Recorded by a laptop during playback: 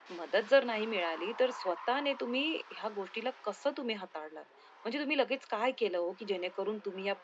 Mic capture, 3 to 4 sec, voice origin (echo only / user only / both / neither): user only